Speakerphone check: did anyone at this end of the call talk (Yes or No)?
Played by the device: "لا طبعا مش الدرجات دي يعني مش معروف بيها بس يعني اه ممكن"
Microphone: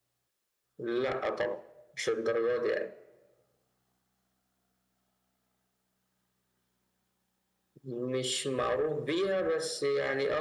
No